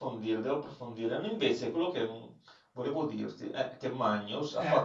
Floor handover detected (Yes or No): No